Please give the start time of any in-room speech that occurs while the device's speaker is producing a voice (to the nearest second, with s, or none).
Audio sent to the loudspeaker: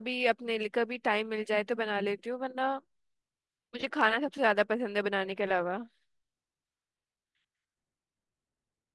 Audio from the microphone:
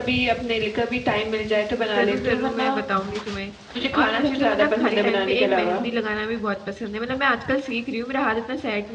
2 s